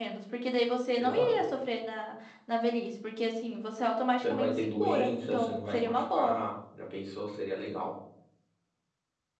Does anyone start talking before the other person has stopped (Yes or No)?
Yes